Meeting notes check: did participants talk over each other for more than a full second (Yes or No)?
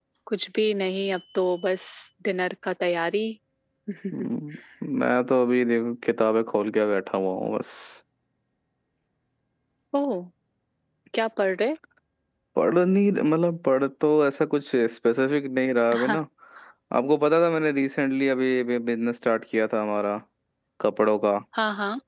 No